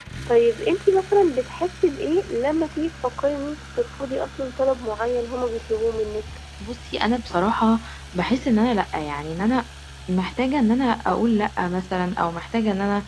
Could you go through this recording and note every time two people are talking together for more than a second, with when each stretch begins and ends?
none

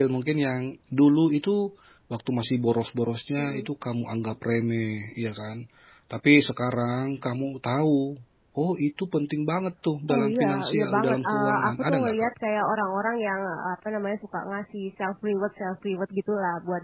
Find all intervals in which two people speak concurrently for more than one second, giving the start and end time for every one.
10.1-12.3

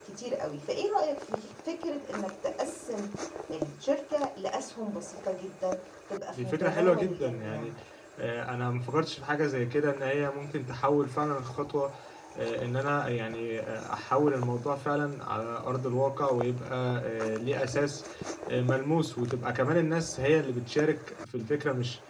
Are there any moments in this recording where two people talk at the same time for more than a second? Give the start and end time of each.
6.3-7.7

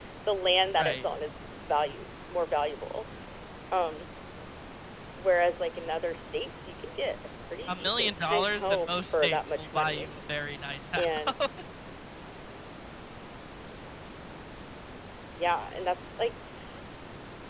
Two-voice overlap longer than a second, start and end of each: 7.7-10.1

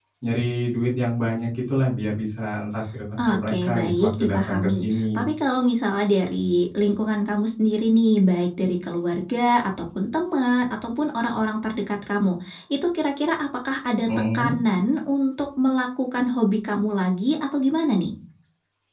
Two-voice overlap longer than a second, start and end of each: 3.3-5.3

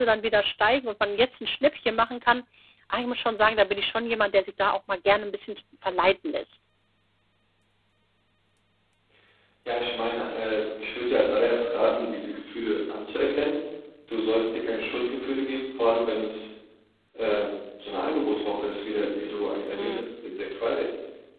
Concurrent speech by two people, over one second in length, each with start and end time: none

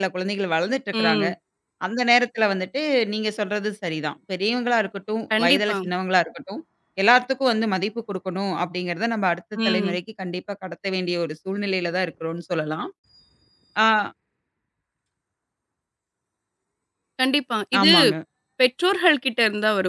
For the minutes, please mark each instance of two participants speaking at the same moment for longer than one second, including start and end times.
none

